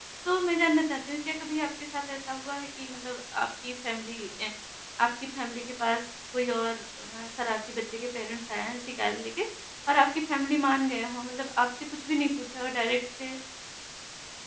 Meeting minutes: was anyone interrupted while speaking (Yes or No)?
No